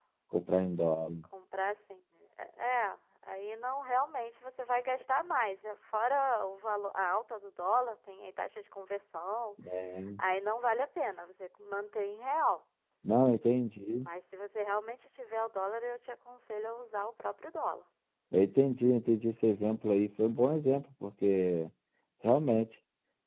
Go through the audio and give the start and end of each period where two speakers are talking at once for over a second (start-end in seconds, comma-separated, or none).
none